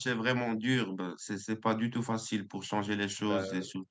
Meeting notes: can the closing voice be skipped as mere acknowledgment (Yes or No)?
Yes